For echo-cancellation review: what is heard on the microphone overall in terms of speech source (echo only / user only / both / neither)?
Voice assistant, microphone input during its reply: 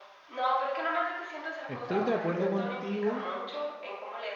both